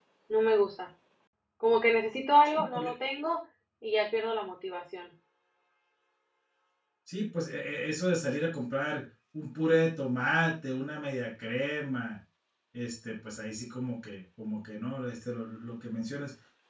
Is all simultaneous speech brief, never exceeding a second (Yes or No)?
Yes